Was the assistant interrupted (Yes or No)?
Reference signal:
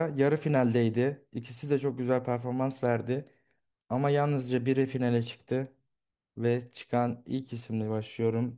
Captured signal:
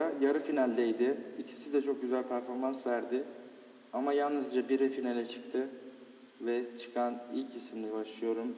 No